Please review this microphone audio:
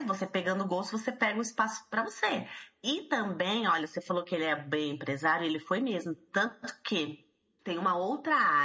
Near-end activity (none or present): none